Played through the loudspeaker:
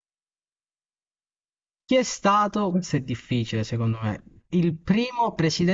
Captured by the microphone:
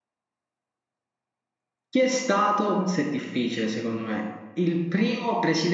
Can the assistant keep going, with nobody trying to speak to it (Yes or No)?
Yes